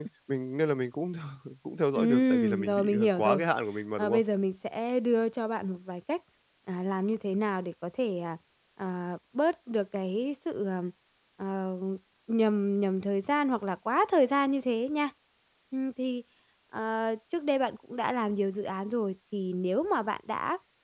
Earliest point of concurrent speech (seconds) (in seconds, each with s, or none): 2.0 s